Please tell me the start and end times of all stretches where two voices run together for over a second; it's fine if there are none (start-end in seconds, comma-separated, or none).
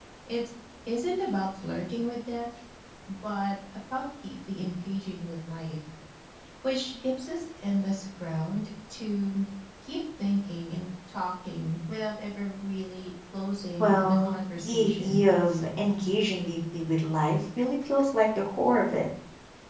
13.8-15.2